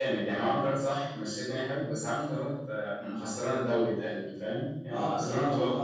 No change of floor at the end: No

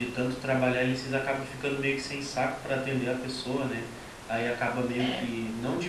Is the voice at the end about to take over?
No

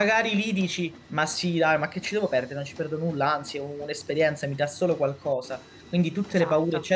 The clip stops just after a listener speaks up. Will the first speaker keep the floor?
Yes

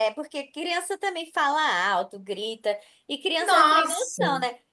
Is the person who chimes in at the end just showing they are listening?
Yes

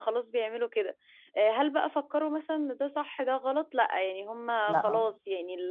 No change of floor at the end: Yes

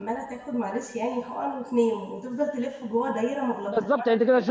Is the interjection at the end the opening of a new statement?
Yes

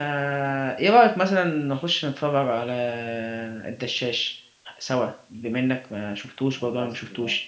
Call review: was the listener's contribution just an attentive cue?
No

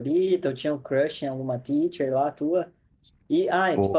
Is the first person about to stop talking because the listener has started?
No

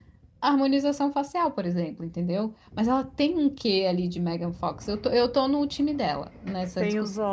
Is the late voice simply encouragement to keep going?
No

